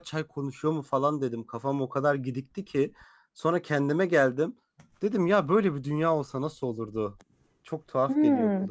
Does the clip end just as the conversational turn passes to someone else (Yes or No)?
Yes